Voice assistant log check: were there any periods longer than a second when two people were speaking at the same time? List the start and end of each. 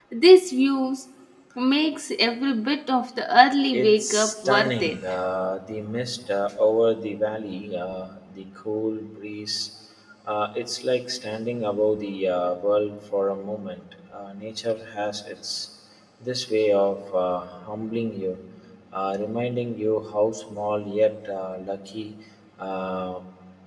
3.7-5.0

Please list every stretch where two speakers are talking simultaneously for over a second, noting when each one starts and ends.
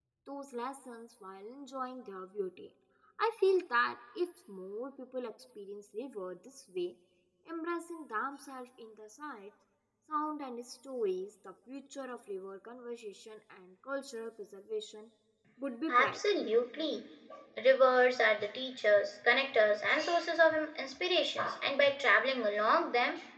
none

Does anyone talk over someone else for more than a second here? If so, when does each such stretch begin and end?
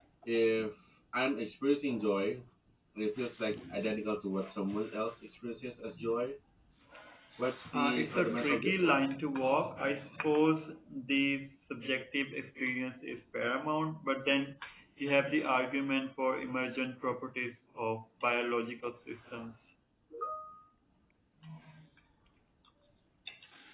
7.7-9.1

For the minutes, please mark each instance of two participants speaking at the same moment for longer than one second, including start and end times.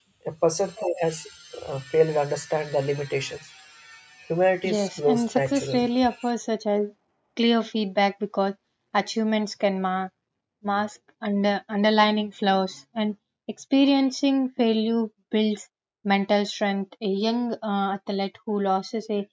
4.7-5.9

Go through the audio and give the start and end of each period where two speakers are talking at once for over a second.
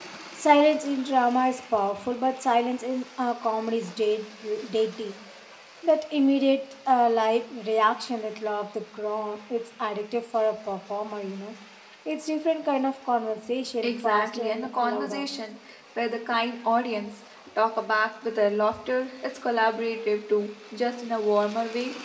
13.8-15.2

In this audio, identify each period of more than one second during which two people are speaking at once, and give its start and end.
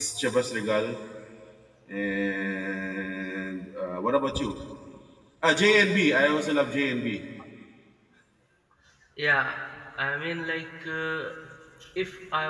none

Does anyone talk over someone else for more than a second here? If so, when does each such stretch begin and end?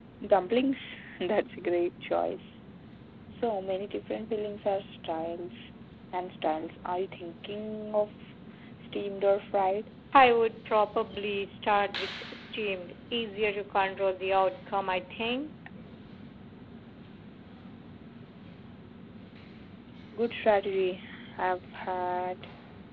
none

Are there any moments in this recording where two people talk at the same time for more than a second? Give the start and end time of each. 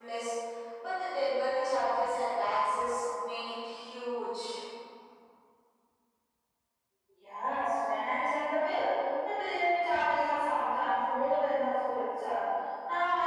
none

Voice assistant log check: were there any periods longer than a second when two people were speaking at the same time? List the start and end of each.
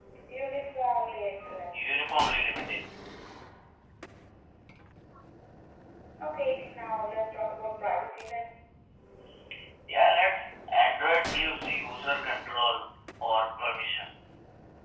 none

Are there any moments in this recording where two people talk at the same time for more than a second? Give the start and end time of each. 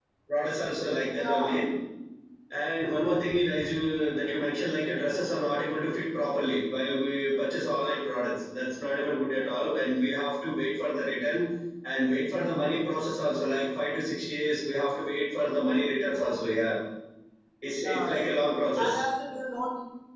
none

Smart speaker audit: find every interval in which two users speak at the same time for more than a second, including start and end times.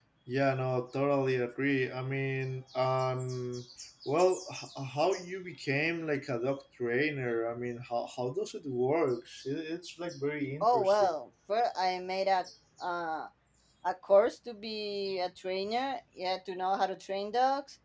none

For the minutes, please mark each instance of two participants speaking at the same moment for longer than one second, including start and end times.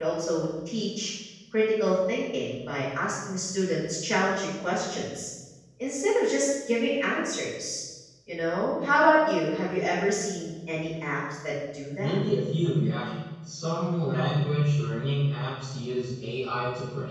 none

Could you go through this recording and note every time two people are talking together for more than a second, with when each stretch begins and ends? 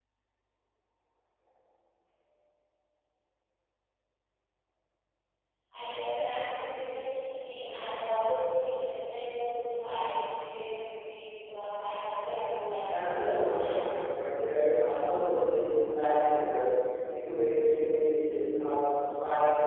12.5-13.8

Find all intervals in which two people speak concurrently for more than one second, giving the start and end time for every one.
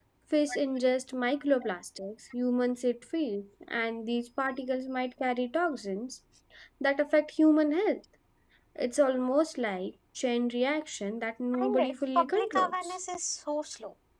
11.6-12.9

